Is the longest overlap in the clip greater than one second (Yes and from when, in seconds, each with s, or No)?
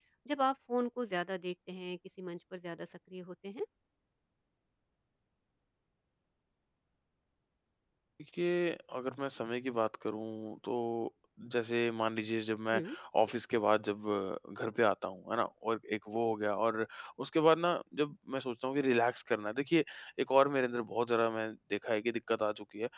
No